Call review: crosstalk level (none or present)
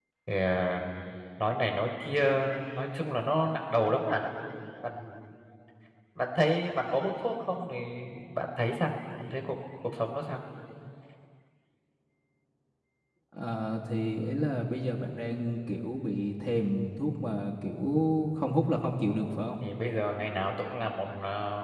none